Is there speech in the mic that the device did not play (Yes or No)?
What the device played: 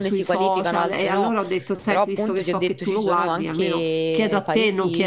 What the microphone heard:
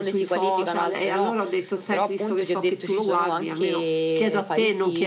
No